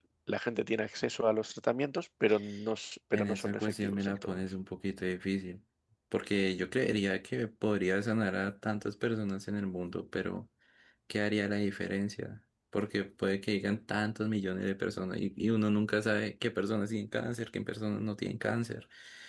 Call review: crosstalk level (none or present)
present